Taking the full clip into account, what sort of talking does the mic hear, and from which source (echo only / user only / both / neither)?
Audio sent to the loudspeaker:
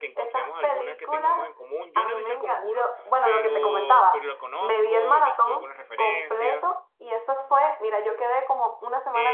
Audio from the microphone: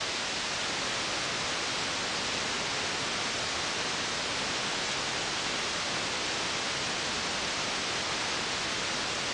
neither